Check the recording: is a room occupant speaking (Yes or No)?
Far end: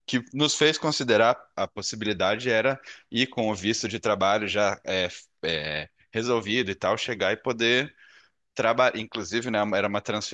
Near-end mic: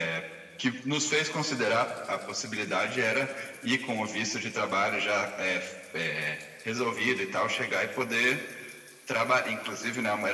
No